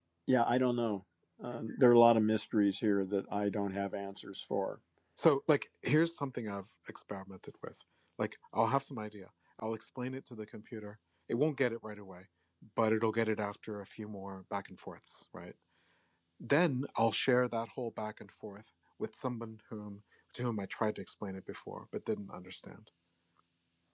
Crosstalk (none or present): none